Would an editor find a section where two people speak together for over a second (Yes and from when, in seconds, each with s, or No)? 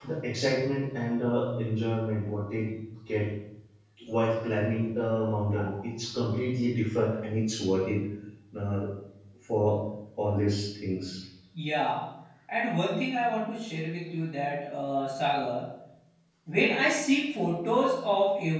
No